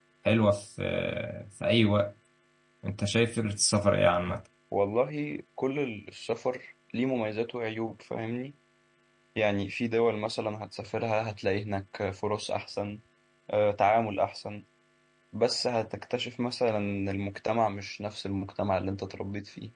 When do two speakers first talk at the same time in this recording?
none

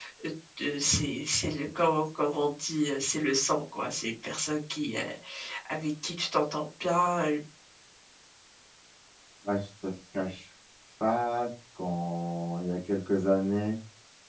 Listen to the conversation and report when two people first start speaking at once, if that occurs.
none

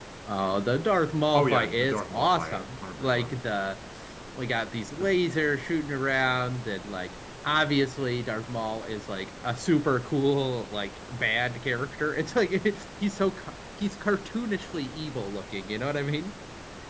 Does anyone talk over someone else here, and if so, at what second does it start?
1.3 s

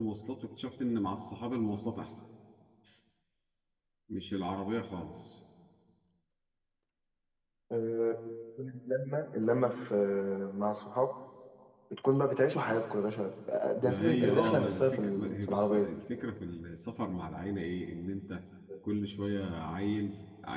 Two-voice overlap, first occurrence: 13.8 s

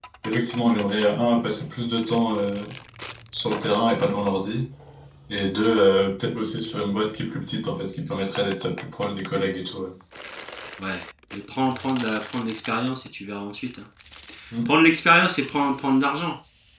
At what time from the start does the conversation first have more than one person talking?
none

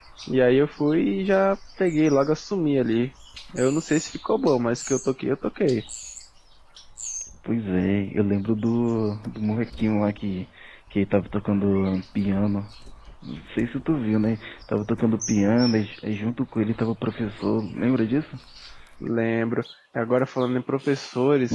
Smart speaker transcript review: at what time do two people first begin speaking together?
none

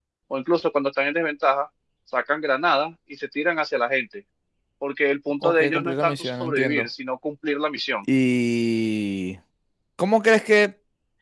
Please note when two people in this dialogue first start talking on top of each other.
5.4 s

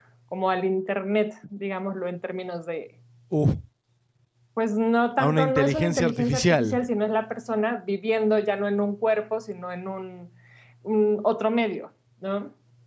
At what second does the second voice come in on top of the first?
5.2 s

